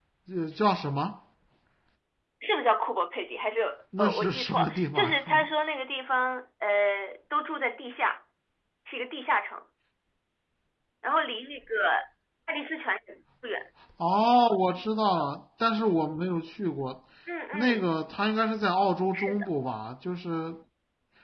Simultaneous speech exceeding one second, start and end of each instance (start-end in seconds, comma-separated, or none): 4.0-5.4